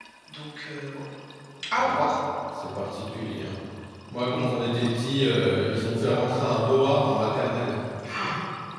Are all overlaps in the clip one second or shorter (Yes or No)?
Yes